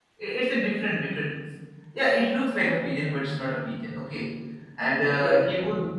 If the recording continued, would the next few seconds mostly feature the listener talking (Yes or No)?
No